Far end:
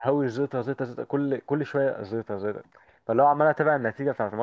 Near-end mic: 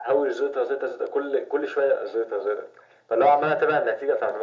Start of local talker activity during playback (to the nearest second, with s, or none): none